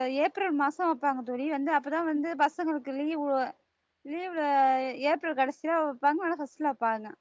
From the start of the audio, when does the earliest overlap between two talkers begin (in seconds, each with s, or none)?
none